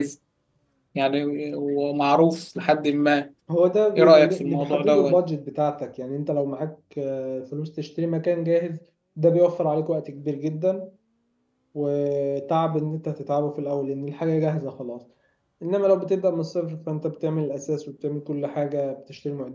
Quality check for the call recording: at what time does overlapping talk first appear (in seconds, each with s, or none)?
4.0 s